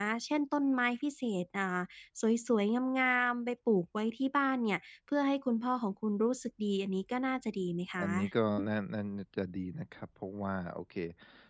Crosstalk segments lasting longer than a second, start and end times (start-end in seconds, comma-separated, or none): none